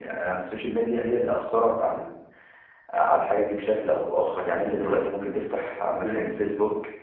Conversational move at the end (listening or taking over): listening